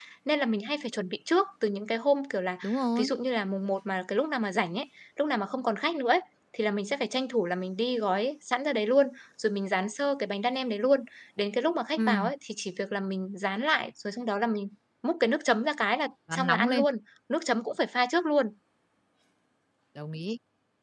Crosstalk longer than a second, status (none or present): none